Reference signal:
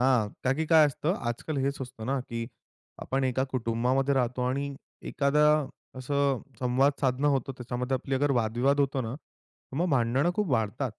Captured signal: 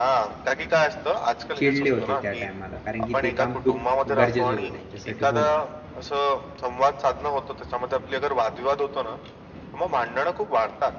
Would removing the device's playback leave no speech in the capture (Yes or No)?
No